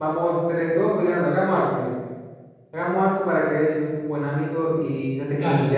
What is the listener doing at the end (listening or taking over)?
listening